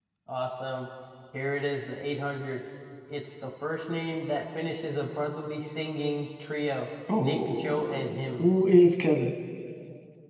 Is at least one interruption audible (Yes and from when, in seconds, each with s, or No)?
Yes, from 7.1 s